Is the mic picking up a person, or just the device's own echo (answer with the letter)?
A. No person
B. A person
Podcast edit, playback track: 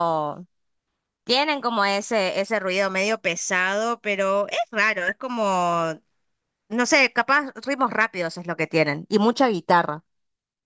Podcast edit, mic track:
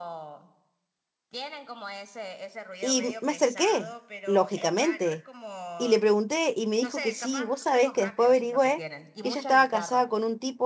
B